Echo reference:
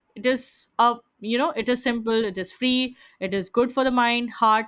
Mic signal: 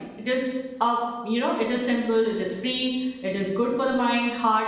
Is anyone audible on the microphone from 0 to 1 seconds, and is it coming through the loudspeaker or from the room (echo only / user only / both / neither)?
echo only